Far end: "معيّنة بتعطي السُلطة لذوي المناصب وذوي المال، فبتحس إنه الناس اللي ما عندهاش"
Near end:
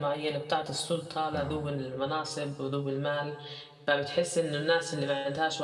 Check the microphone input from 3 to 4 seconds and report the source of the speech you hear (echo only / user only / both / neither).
echo only